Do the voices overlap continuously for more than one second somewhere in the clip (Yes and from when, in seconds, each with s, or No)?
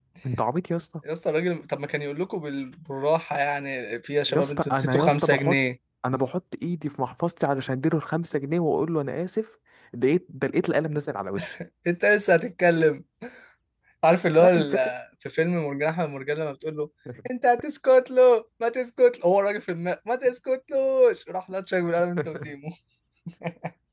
Yes, from 4.3 s